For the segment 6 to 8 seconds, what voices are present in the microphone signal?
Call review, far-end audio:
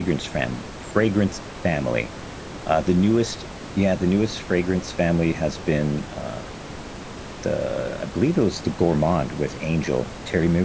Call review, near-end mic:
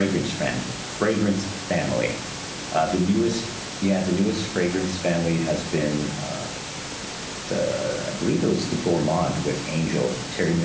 echo only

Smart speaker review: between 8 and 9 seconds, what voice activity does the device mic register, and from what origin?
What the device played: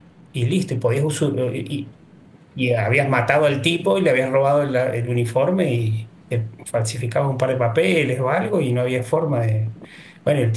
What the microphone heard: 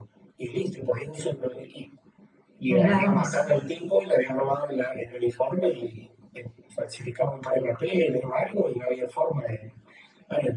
echo only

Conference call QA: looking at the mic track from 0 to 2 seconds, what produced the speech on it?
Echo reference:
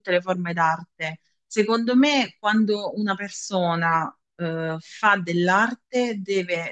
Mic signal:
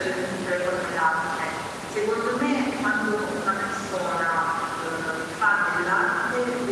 echo only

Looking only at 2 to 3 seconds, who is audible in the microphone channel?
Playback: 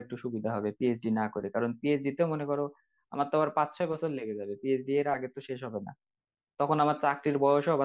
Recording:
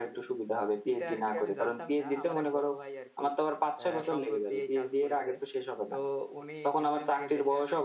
both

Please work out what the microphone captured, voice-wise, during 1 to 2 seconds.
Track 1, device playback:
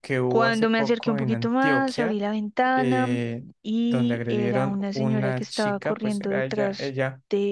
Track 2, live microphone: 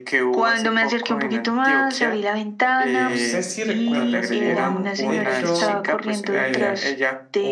echo only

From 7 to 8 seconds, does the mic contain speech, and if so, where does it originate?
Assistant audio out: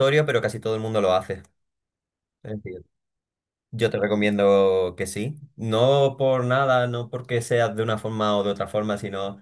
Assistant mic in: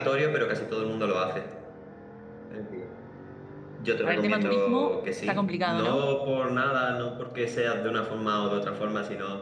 echo only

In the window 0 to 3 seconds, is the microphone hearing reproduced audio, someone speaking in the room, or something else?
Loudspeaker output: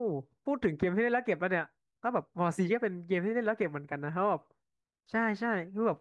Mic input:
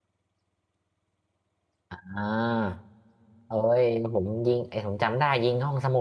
user only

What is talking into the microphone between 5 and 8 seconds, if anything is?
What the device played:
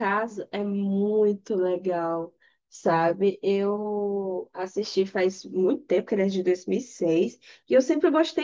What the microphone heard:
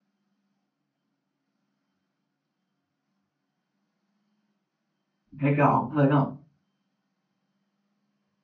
user only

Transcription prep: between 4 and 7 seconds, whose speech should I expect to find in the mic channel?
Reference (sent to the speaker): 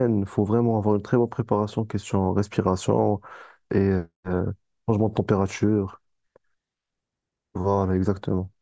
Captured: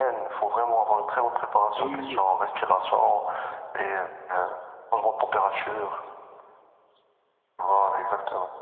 echo only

